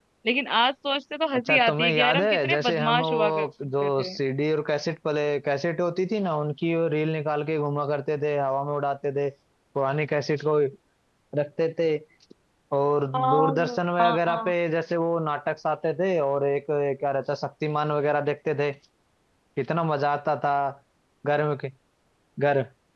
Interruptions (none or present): present